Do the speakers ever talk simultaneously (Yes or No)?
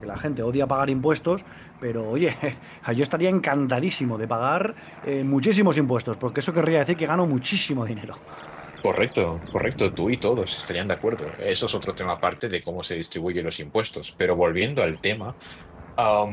No